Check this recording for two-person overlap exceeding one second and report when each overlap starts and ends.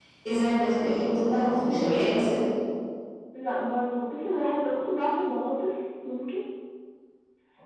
none

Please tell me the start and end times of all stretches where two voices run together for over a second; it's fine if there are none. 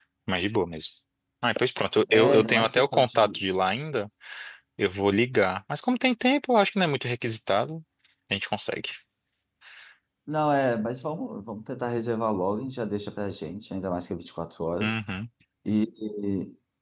2.1-3.4

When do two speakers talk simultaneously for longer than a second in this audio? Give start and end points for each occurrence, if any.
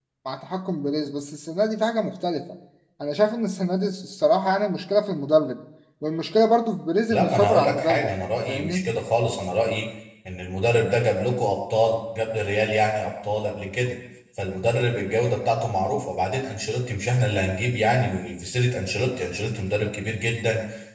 7.1-8.9

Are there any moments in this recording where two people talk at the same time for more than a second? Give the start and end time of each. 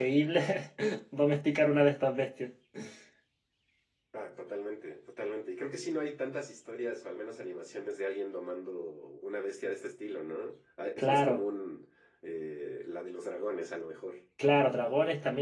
none

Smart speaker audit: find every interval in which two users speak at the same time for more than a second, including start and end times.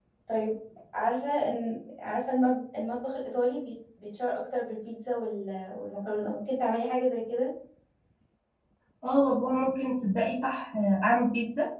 none

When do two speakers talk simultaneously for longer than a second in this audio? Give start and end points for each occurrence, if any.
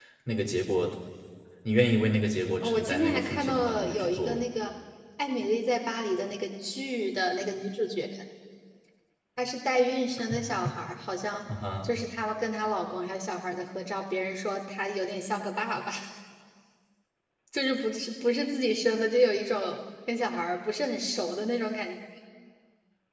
2.6-4.5

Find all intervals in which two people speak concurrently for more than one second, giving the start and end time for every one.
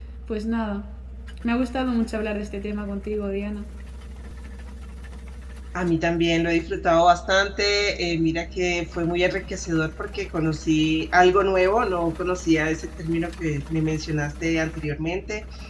none

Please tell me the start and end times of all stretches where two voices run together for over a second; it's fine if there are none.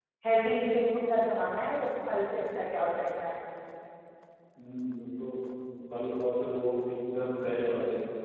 none

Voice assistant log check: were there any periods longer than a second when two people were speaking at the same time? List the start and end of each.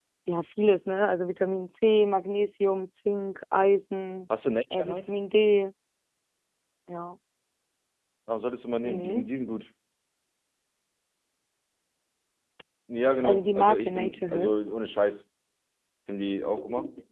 13.2-14.5

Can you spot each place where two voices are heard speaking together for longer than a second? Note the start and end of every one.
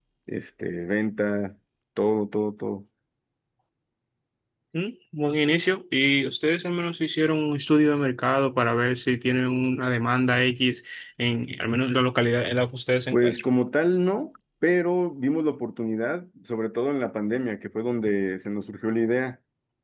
none

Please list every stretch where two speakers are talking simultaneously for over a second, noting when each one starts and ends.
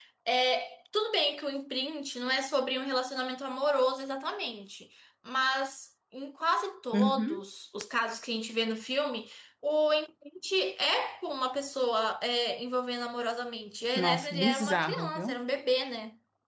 13.9-15.4

